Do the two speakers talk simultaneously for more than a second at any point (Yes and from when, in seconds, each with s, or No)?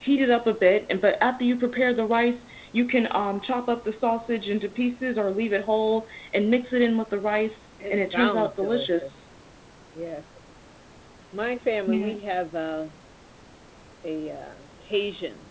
Yes, from 7.9 s